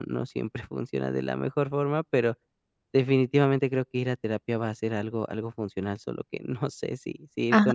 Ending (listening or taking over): taking over